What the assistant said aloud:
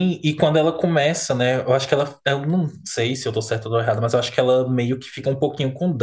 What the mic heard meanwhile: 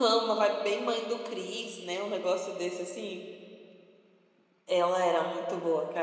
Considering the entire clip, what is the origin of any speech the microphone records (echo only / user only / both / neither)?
user only